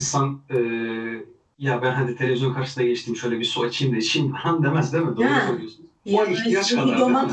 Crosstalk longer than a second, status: present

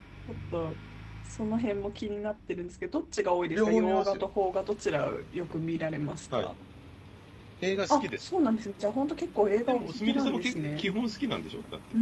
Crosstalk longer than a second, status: present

